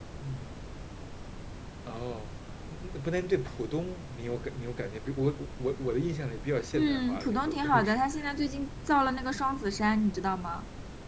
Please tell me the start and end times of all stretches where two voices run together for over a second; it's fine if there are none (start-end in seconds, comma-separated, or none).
6.7-8.0